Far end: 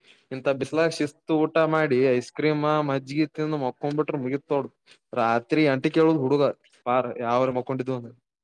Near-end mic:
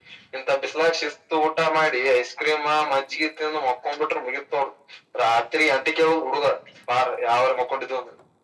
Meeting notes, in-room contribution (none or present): none